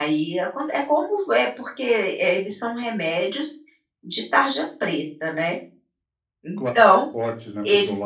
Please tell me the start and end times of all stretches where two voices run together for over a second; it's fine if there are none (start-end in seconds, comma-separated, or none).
none